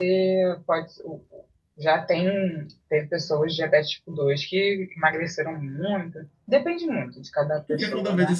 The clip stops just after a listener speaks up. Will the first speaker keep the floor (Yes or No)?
No